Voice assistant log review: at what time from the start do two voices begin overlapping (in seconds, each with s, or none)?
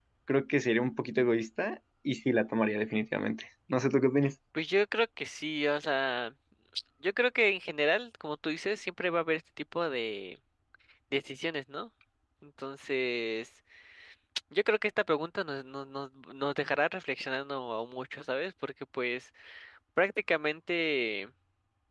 none